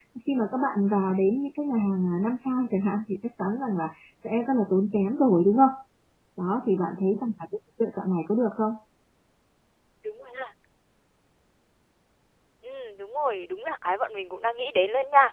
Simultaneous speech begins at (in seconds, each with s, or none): none